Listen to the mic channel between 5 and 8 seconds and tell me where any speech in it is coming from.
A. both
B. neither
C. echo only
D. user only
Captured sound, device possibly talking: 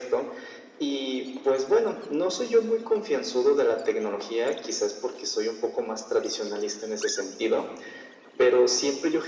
C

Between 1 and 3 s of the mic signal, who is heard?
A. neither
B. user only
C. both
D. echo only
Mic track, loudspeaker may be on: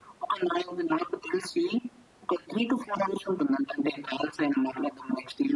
D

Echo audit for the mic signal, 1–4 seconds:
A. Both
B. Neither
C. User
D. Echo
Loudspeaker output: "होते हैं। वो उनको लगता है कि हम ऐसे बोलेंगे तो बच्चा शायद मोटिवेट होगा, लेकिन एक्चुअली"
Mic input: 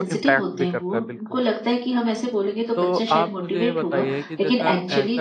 A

